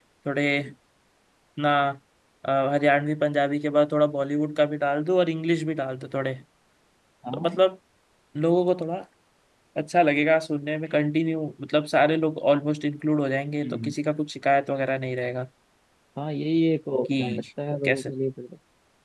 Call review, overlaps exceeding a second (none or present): none